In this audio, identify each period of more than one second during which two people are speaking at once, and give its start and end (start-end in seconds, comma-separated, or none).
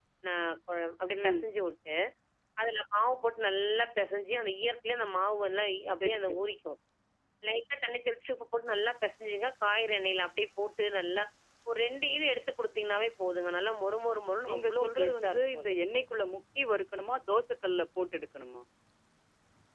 14.5-15.7